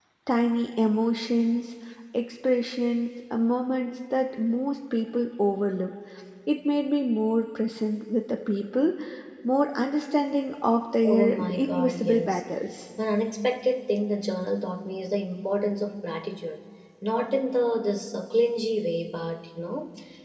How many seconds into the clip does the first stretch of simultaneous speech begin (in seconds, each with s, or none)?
11.0 s